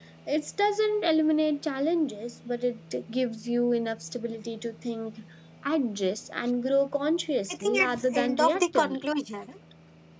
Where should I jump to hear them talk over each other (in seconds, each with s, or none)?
7.5 s